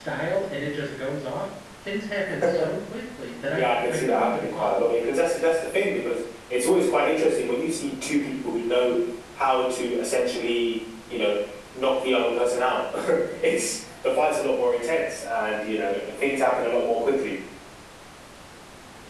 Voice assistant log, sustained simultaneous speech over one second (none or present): present